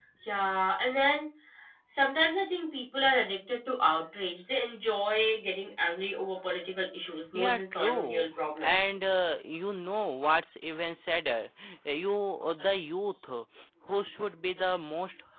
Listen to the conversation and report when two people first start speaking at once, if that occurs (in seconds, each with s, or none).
7.3 s